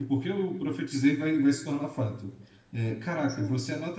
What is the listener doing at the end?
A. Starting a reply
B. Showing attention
B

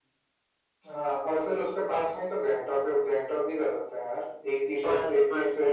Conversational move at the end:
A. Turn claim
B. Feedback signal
A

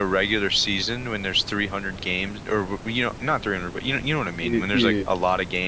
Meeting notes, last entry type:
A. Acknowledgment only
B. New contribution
A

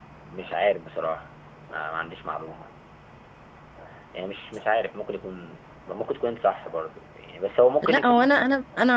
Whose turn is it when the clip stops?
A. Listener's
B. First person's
A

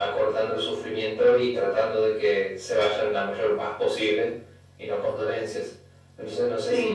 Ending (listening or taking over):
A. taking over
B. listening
A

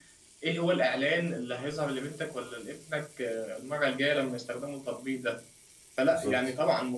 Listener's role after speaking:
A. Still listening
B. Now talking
A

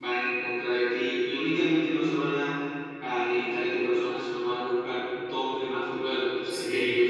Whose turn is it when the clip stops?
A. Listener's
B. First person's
A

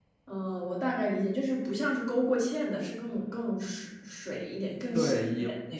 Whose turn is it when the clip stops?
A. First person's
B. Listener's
B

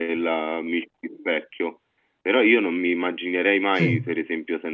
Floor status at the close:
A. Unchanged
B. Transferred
A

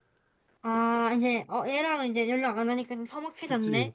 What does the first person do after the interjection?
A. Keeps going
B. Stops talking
B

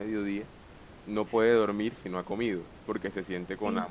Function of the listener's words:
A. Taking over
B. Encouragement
B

